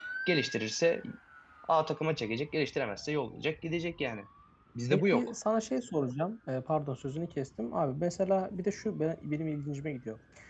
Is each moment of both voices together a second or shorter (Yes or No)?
Yes